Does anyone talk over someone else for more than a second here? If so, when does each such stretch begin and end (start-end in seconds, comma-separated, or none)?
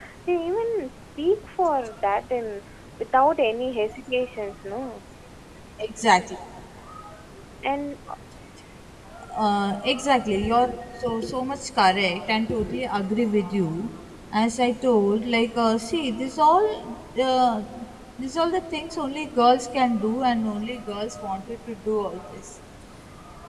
none